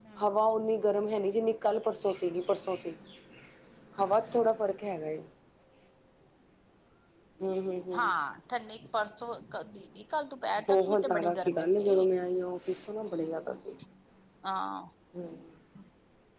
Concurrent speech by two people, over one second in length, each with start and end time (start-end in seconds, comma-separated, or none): 10.7-12.1